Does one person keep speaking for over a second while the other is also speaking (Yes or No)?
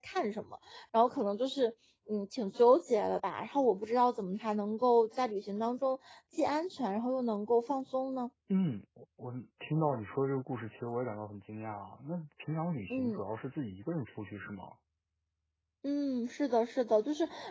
No